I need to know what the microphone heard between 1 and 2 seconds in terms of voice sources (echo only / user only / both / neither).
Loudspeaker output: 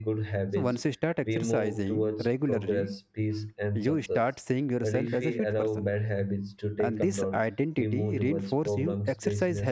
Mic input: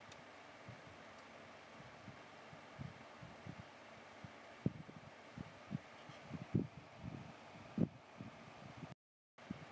neither